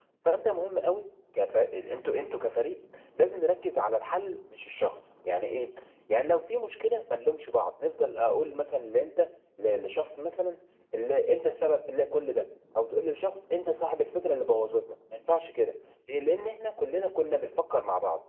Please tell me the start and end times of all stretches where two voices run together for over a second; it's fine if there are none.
none

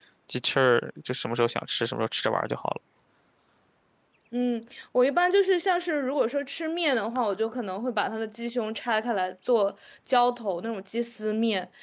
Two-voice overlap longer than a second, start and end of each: none

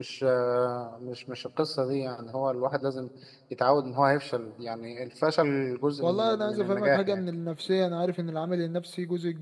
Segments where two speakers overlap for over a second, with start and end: 6.0-7.2

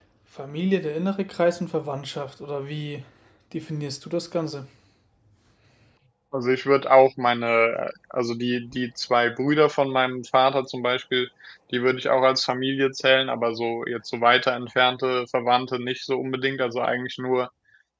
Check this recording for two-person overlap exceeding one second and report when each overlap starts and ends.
none

